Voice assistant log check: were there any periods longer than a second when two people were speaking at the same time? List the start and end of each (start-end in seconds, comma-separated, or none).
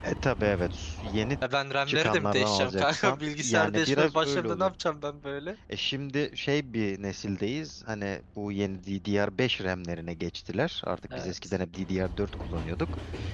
1.9-4.7